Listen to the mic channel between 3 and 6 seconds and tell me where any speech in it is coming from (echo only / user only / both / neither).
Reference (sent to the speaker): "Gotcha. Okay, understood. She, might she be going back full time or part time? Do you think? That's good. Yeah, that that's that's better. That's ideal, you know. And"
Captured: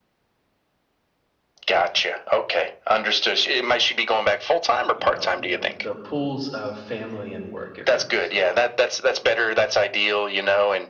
both